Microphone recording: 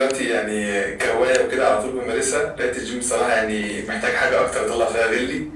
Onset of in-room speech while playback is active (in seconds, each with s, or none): none